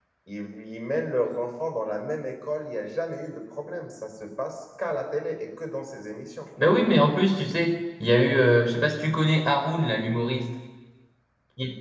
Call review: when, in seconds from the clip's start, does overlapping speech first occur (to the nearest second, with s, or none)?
none